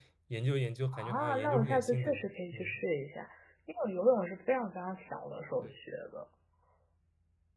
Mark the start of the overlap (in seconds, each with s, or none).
0.9 s